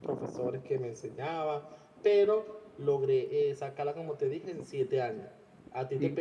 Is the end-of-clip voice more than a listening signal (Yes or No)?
No